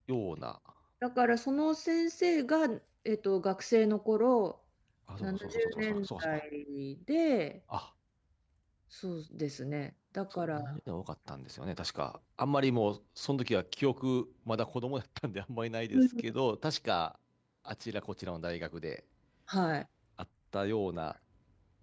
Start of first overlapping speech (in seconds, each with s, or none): 5.2 s